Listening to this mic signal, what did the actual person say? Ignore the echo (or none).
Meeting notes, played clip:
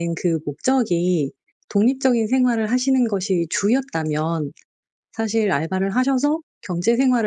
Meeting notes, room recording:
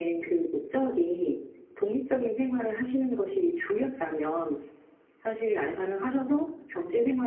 none